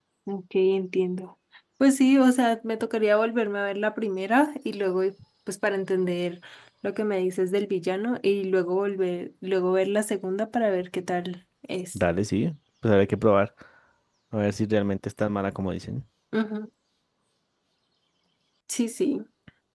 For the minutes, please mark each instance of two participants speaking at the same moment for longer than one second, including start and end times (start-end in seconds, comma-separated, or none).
none